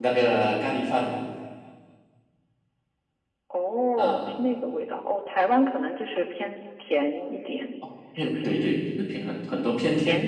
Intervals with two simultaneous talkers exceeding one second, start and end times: none

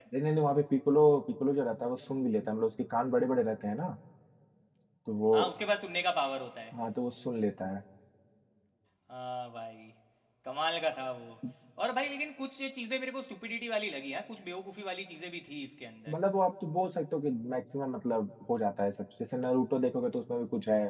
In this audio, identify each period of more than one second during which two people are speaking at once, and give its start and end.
none

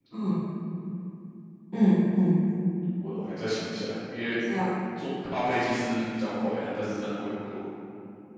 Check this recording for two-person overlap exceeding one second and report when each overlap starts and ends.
none

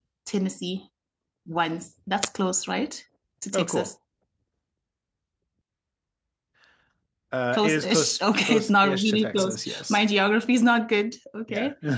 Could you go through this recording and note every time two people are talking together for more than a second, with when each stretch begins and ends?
7.5-10.0

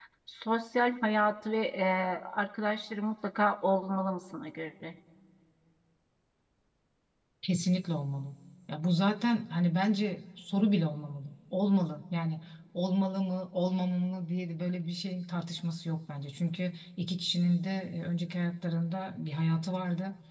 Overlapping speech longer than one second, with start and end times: none

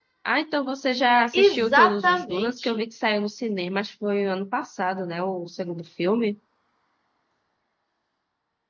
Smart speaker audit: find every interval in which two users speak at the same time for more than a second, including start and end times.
1.3-2.8

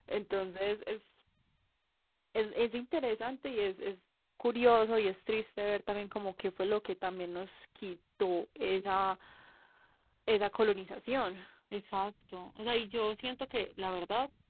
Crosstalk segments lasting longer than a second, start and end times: none

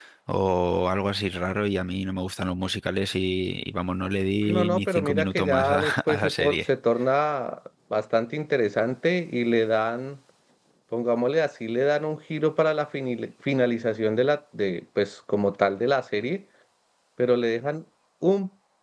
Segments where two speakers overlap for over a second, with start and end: 4.5-6.7

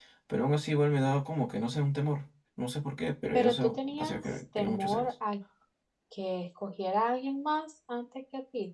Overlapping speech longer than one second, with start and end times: 3.3-5.1

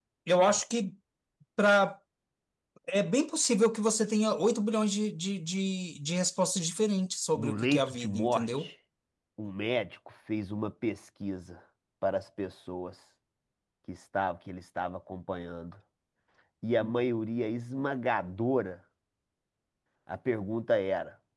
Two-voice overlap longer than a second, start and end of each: 7.3-8.7

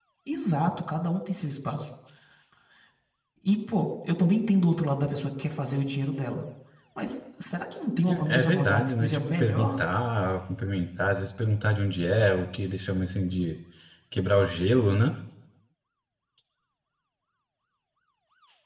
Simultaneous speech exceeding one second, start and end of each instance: 8.1-9.8

